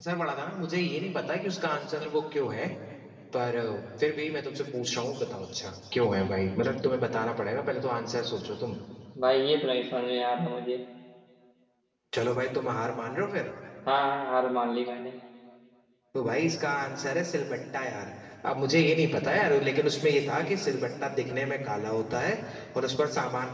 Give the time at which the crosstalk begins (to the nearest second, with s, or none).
none